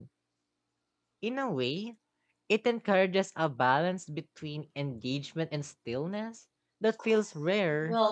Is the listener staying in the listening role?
No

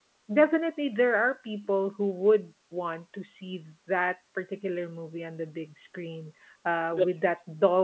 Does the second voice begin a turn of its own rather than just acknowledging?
No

